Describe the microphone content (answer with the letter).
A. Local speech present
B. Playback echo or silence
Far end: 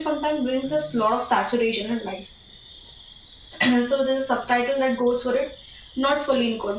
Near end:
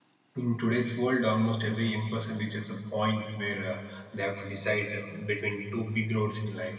A